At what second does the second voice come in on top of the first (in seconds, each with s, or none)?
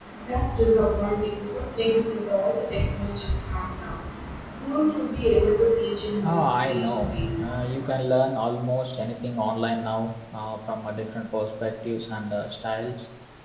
6.2 s